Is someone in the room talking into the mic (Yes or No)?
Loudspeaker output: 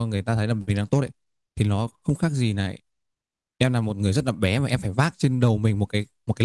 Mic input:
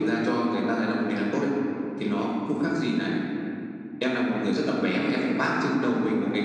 No